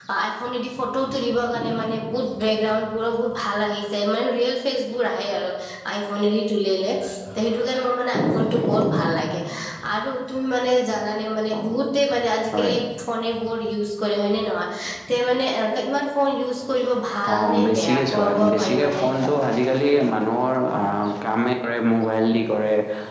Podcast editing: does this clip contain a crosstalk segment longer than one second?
Yes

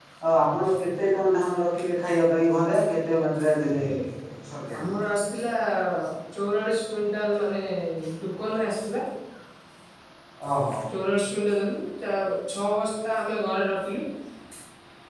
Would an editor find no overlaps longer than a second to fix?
Yes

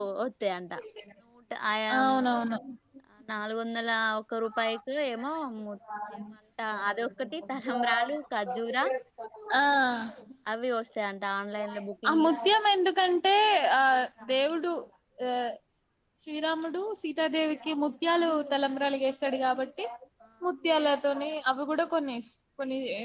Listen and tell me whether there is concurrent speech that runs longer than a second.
No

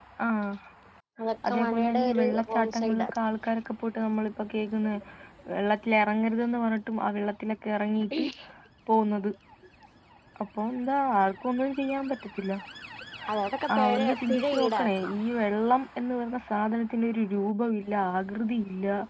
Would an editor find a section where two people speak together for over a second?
Yes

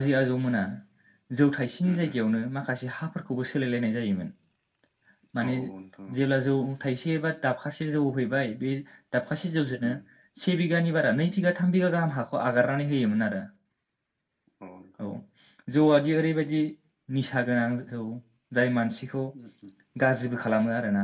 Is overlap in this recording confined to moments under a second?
Yes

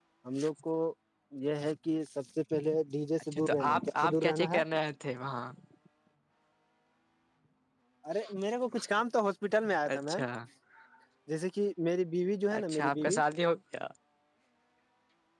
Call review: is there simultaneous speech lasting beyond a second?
Yes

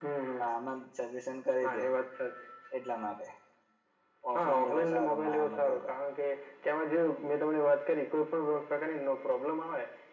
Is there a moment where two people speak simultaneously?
Yes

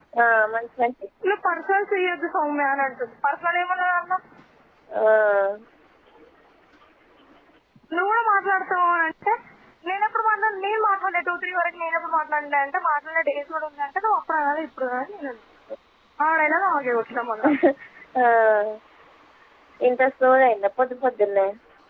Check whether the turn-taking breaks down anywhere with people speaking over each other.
No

